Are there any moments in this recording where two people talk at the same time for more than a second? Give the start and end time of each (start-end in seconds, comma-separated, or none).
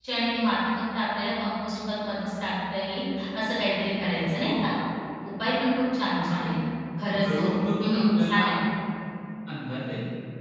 7.2-8.4